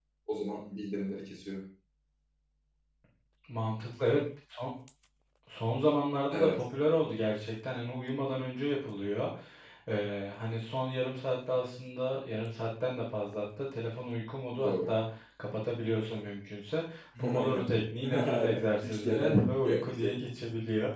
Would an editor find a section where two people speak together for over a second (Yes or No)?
Yes